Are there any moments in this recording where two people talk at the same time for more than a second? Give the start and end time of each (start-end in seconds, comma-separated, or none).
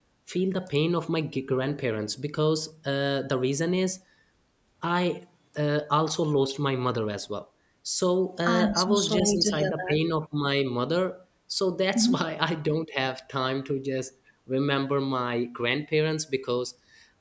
8.4-10.0